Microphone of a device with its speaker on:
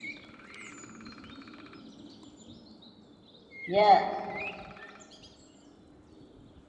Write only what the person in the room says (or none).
Yeah.